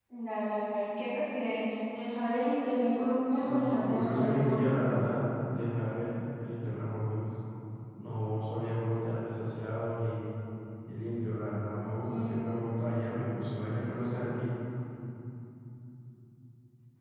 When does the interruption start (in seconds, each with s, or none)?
3.4 s